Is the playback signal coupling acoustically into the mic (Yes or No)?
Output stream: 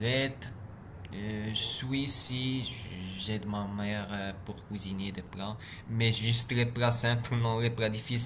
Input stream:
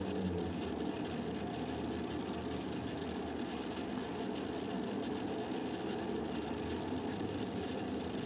No